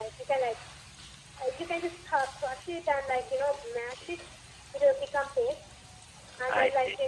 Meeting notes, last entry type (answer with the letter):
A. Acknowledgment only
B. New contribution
A